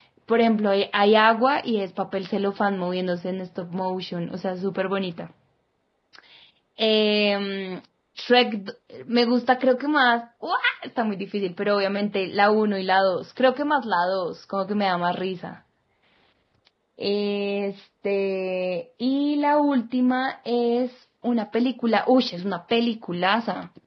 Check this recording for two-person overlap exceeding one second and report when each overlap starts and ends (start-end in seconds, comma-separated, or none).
none